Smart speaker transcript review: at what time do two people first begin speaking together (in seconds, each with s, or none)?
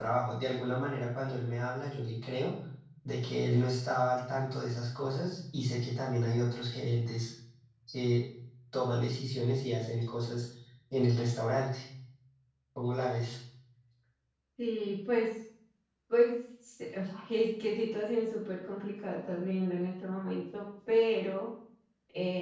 none